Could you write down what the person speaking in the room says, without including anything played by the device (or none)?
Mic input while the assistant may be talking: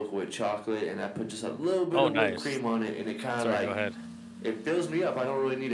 Oh, nice. Sorry, go ahead.